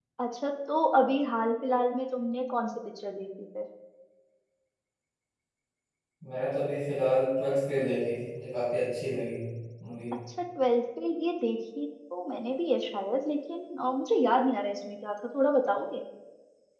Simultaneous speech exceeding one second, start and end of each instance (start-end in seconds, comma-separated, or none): none